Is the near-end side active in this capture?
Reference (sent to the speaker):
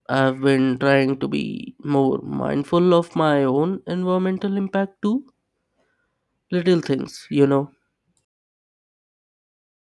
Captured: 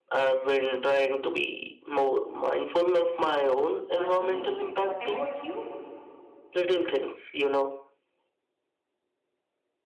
Yes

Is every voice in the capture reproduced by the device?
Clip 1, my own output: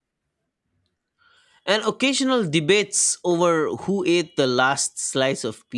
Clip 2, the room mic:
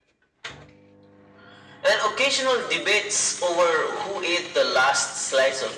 Yes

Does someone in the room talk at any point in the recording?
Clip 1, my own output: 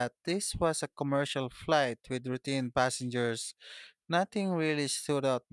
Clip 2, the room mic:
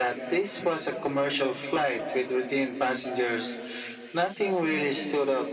No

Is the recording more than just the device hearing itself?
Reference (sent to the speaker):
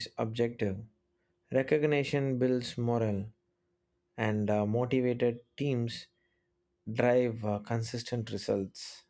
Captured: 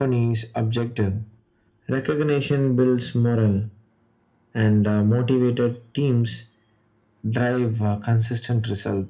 No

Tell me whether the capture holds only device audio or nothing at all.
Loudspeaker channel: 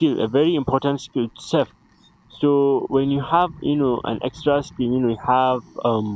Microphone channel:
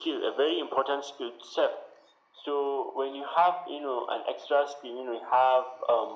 Yes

